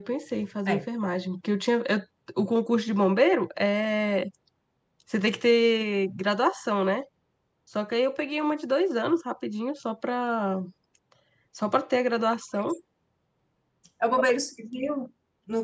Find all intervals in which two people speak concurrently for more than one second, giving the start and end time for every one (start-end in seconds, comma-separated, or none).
none